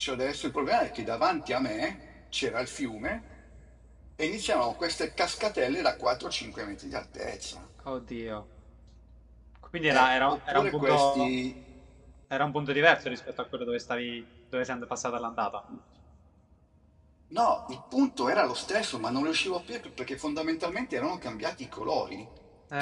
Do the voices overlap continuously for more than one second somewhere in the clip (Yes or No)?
Yes